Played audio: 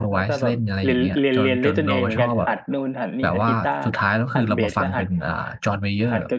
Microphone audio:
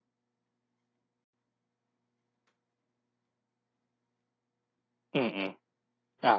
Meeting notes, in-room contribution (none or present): present